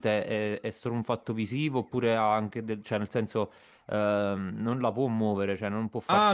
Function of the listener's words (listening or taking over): taking over